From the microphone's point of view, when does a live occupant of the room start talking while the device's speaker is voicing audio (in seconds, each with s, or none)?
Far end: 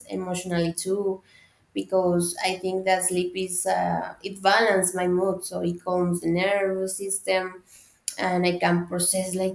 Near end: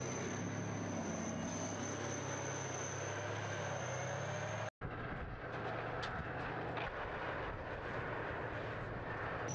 none